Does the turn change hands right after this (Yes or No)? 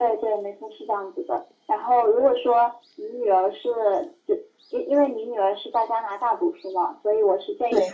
No